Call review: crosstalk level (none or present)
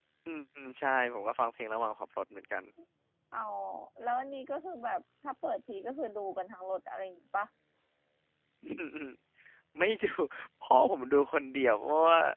none